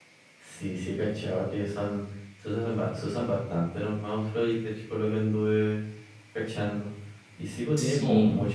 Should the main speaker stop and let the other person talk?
No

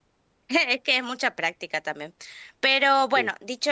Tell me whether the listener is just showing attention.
Yes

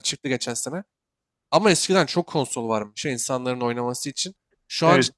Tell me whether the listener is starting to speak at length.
No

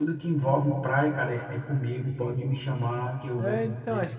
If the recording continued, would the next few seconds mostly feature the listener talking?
Yes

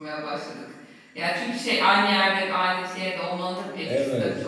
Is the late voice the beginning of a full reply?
Yes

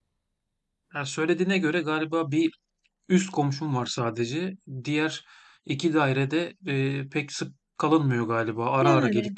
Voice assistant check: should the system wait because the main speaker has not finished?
No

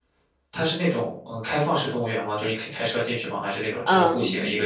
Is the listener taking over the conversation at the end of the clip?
Yes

